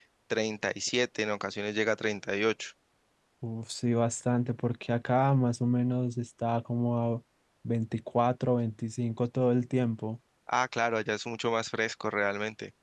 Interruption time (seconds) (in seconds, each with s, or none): none